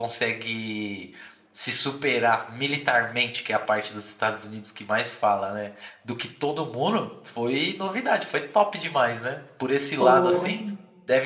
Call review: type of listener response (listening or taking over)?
listening